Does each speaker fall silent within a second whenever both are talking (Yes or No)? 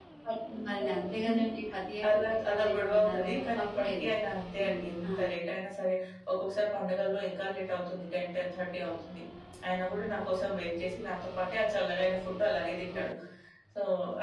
No